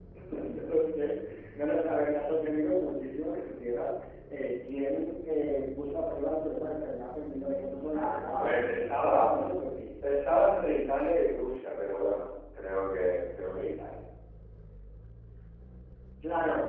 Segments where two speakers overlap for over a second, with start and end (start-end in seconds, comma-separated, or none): 7.9-9.3